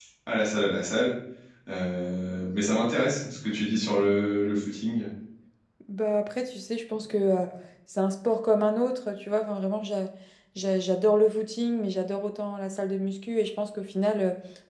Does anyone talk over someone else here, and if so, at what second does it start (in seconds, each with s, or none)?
none